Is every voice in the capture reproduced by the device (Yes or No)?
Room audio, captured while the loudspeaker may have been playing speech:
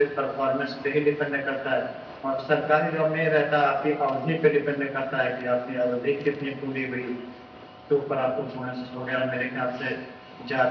Yes